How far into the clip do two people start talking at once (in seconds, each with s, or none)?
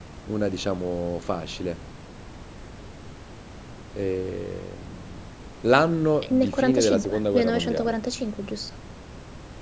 6.2 s